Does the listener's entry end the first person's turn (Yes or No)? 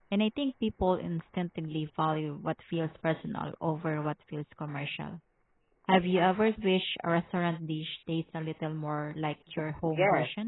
Yes